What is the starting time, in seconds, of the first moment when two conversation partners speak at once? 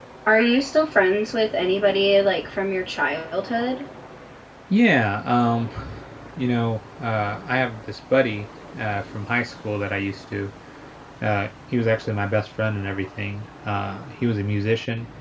none

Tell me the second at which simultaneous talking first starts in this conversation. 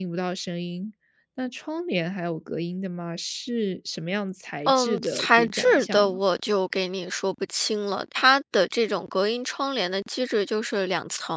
4.7 s

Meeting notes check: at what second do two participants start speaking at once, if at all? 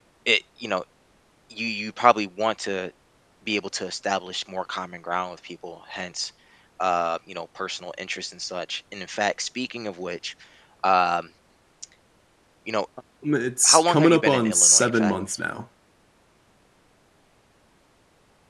13.6 s

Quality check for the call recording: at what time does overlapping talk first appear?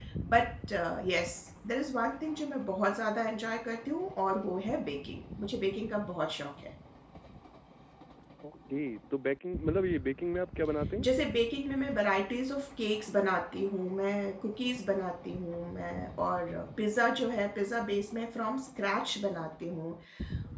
none

